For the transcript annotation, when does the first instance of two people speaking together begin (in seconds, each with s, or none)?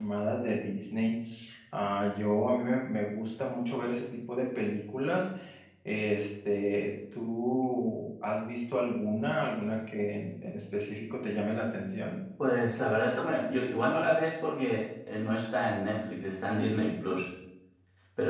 none